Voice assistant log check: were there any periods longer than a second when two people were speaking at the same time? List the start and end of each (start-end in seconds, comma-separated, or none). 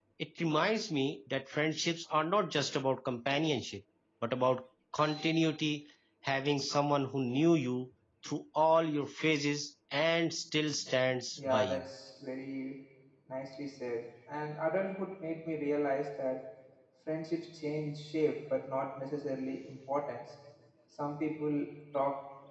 none